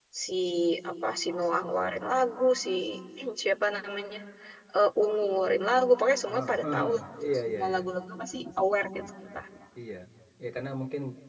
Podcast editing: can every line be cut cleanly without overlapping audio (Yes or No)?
No